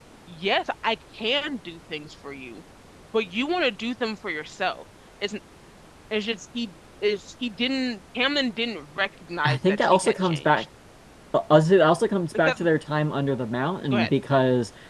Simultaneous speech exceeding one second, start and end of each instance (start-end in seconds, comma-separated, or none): 9.4-10.7